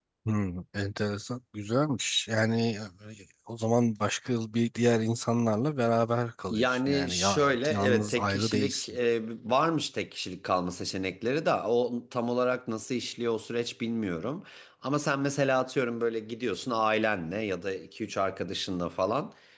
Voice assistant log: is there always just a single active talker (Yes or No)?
No